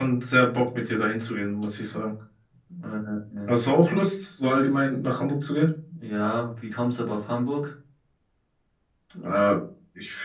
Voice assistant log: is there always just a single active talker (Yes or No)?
Yes